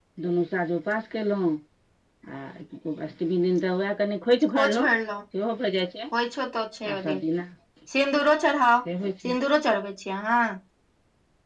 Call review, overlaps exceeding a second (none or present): none